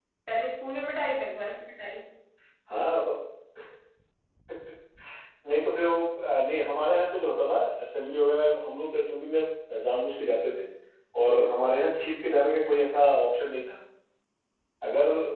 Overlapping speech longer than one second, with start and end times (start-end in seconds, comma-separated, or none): none